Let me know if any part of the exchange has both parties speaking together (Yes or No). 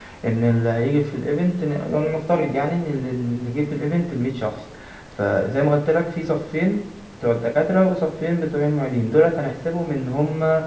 No